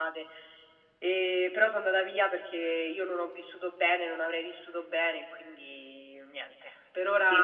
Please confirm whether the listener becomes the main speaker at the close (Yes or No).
Yes